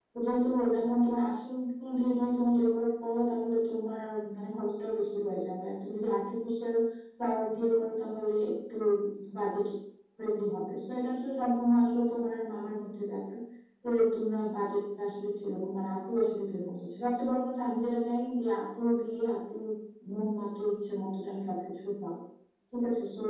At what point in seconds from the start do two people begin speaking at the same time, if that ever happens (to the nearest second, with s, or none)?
none